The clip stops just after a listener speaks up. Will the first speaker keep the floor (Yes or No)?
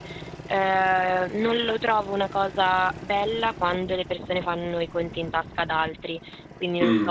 Yes